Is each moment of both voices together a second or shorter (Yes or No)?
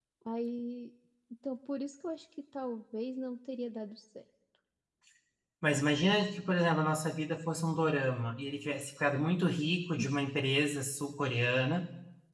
Yes